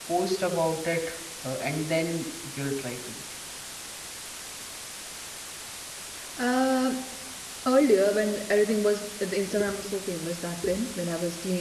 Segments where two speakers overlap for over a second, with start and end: none

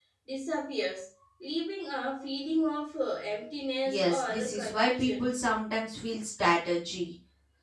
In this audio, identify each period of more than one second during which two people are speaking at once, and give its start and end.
3.9-5.3

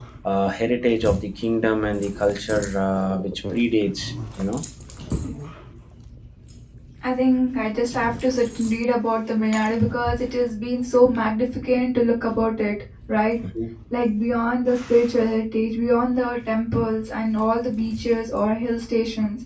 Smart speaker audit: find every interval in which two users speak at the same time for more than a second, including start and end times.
none

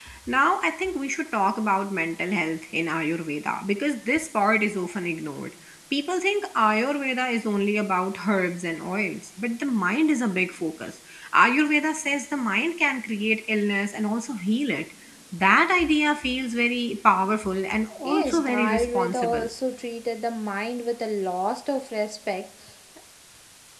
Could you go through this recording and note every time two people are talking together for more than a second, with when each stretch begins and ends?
18.0-19.4

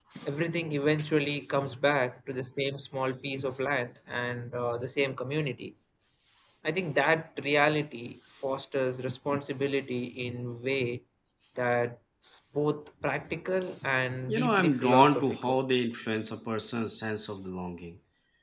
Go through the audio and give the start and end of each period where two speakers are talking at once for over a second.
14.3-15.6

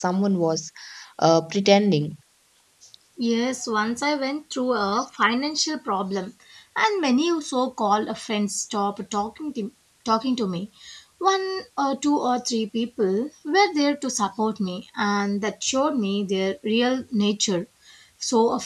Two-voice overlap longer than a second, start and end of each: none

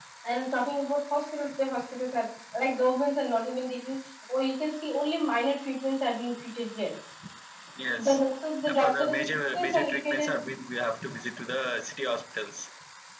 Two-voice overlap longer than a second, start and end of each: 8.7-10.3

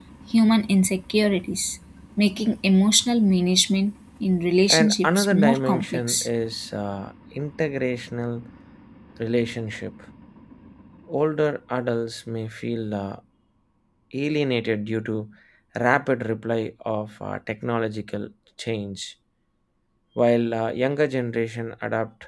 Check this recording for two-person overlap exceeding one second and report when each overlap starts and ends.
4.7-6.3

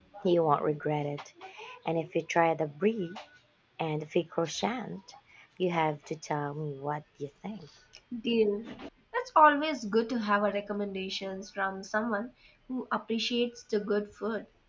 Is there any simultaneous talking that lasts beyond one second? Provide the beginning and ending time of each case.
none

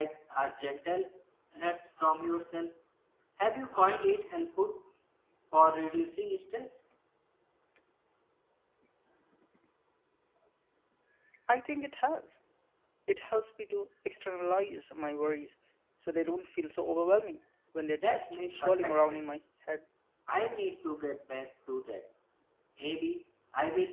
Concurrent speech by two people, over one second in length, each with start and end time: 18.0-19.3

